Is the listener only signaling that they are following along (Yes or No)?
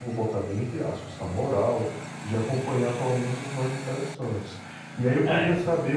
Yes